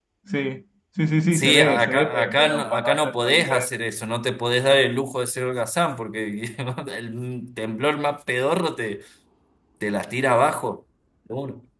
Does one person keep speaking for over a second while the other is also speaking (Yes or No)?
Yes